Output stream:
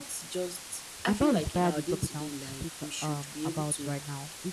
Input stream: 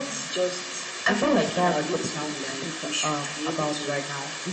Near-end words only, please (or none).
none